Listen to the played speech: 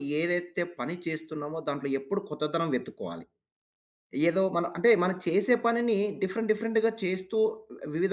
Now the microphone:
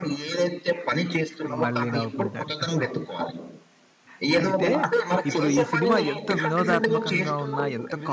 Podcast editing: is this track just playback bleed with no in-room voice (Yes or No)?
No